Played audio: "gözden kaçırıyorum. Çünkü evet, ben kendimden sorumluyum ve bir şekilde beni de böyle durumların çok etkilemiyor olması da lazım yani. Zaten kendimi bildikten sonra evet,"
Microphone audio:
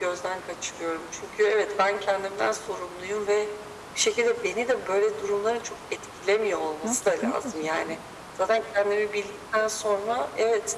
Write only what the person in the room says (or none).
Ya, kesinlikle suç değil.